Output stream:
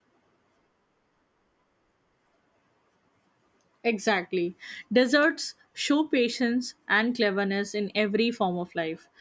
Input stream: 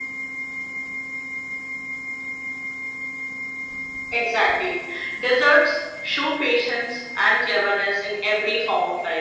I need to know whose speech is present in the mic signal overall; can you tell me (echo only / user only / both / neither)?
echo only